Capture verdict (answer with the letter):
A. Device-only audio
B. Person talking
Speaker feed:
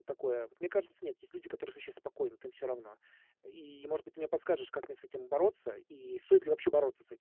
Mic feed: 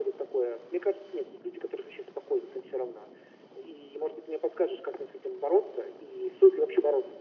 A